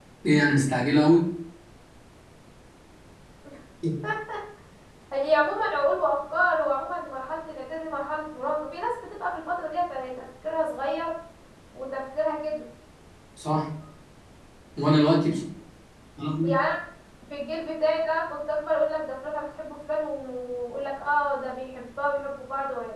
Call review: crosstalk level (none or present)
none